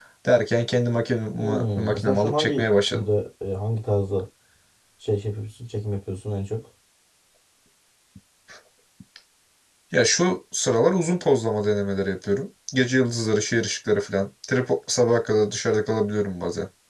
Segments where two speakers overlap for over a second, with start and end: 1.4-3.0

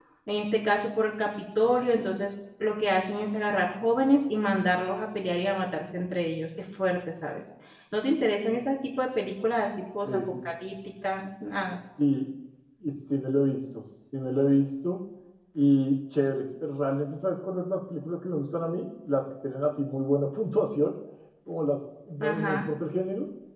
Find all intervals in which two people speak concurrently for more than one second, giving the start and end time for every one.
none

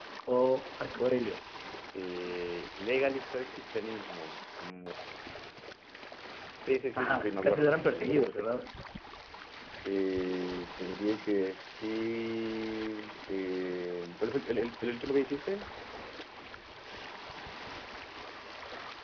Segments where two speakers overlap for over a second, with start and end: 7.0-8.5

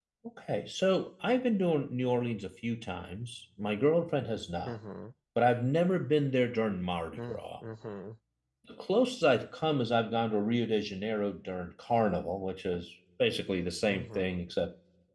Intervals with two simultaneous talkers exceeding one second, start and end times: none

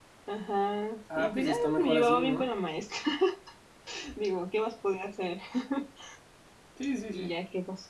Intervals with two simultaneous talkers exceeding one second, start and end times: 1.1-2.5

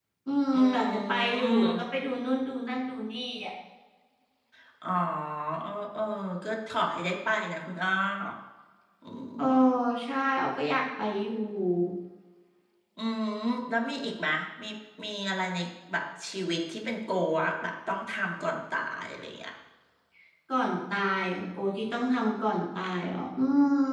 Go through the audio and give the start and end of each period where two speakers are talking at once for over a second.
0.5-1.8

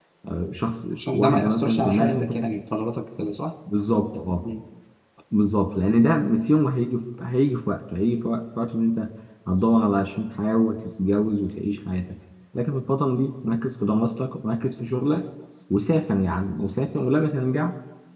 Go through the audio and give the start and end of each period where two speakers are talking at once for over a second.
1.0-2.3

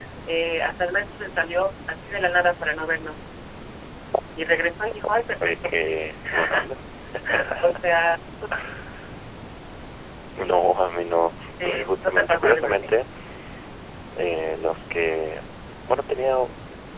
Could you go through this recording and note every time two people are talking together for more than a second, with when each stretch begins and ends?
11.7-12.9

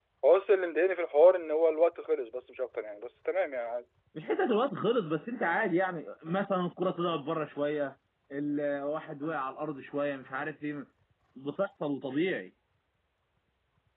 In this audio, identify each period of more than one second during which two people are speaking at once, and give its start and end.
none

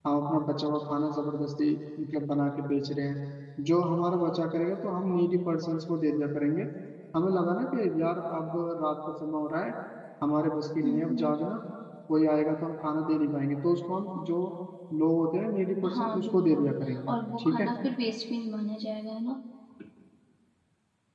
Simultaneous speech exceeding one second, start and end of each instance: 15.9-17.7

